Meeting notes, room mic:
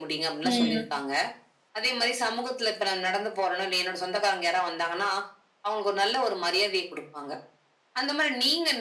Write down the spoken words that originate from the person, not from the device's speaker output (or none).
ம்.